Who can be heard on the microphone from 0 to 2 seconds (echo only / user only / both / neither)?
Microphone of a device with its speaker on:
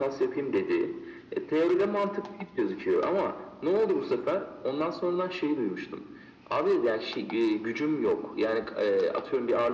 echo only